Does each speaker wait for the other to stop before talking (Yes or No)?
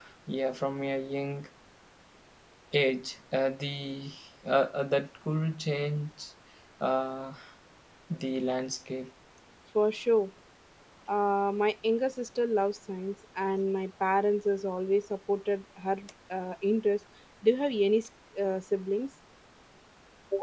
Yes